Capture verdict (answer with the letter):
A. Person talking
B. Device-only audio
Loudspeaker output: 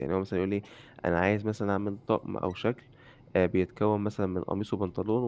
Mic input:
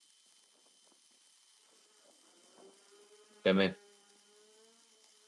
A